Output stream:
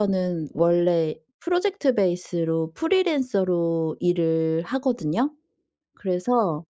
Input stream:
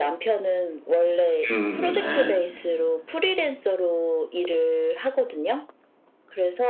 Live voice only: 음음 네.

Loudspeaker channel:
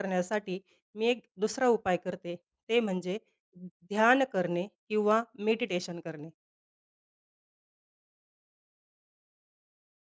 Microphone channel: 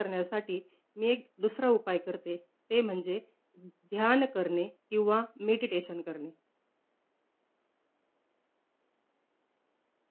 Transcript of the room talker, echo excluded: none

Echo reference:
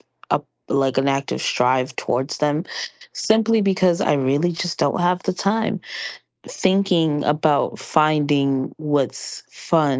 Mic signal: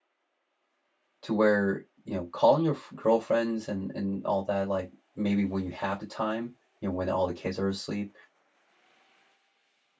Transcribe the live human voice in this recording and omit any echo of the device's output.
to where, you know, calling your f- girlfriends and and all that like maybe when you have the time, you know, when all the kids are asleep

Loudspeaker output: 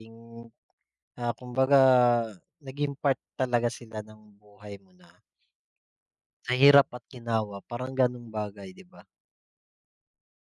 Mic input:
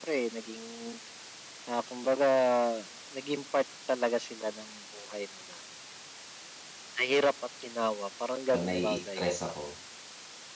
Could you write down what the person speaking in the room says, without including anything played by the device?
'Pag nai-stress ako,

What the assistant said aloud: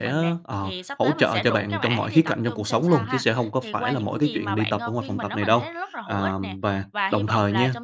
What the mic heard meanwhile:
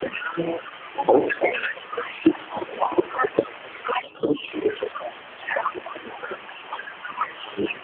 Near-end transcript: none

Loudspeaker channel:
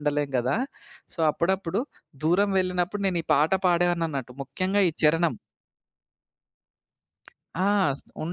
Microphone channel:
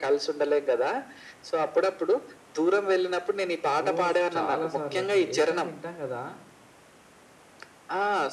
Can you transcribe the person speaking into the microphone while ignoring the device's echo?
ఓహ్! స్ చాలా సార్లండి. ఎఫ్ఎం వింటాం గదా!

